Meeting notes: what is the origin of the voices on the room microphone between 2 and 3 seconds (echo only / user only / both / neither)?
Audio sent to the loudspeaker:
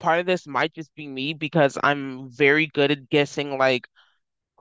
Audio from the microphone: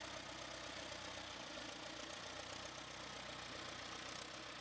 neither